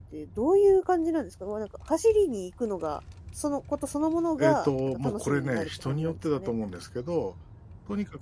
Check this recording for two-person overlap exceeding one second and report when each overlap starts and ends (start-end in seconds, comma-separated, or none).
4.4-6.5